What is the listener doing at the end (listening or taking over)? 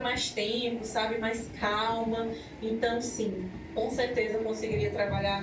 listening